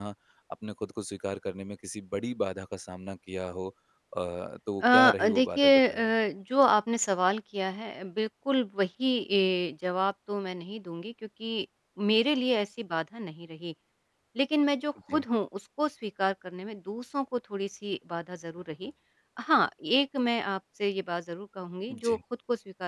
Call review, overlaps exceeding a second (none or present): present